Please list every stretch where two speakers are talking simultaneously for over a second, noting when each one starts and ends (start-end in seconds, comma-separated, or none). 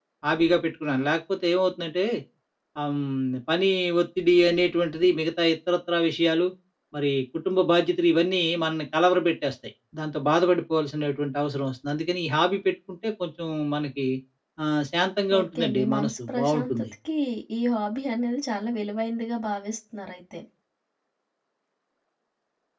15.4-16.8